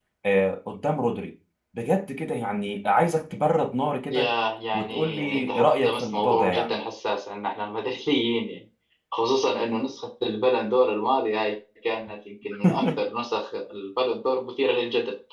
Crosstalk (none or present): present